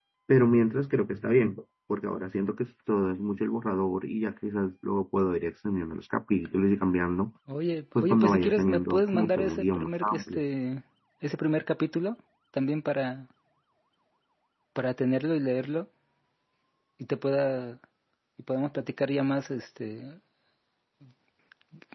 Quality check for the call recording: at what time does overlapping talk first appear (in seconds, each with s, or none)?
8.0 s